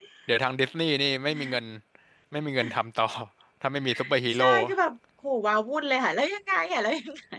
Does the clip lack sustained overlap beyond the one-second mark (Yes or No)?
Yes